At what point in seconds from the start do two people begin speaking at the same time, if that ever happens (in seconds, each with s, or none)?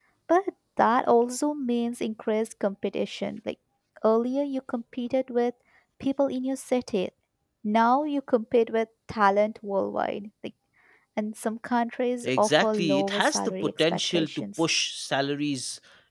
12.2 s